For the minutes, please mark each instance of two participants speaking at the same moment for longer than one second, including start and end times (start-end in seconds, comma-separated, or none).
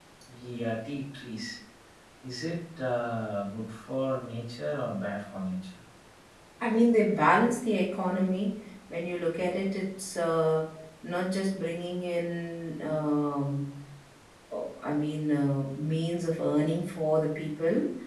none